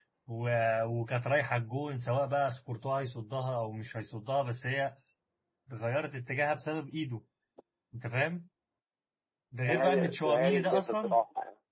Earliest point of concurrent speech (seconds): 9.7 s

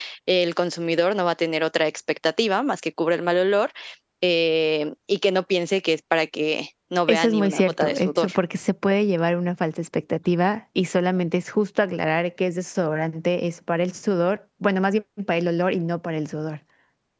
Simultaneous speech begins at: 7.1 s

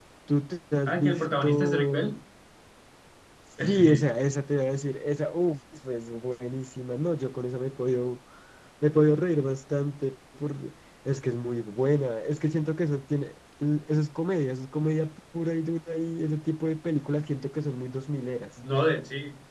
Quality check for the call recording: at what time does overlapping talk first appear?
0.9 s

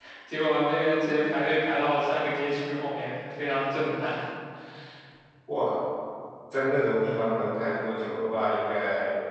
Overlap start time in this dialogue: none

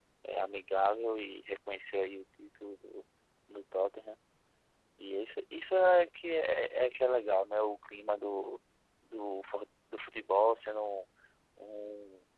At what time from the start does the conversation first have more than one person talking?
none

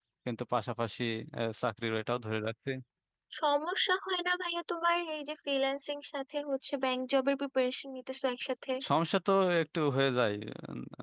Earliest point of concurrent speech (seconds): none

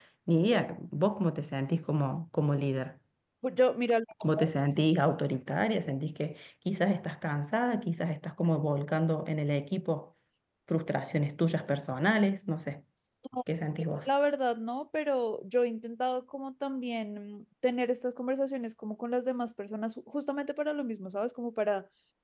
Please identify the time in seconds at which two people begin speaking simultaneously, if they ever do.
none

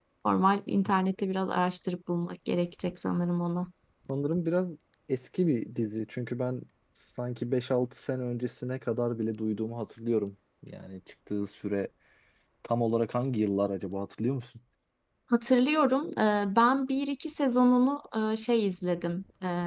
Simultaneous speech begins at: none

